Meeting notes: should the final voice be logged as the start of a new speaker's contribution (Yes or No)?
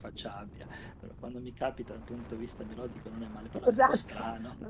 Yes